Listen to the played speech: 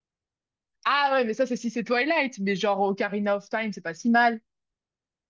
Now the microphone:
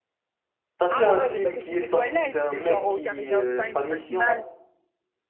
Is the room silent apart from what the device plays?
No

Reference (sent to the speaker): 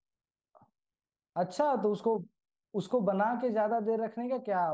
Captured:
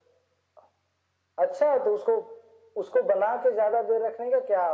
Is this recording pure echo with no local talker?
Yes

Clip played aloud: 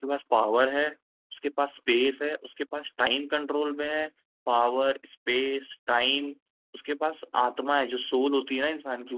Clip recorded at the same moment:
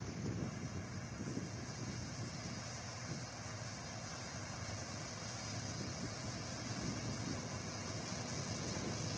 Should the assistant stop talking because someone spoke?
No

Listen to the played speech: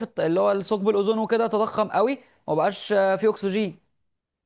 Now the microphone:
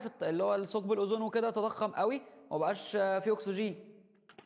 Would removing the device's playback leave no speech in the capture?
Yes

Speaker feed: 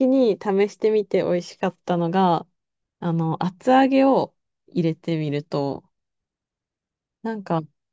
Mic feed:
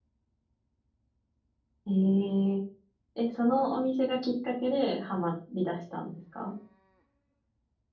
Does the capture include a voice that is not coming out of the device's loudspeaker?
Yes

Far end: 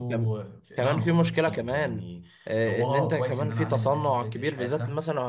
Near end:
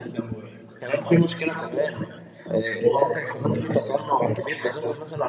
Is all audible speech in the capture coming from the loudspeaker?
Yes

